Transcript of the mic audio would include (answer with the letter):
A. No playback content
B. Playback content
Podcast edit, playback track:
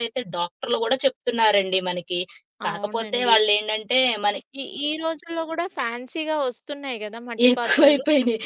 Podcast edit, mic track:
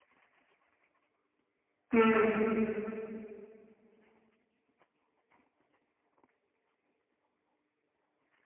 A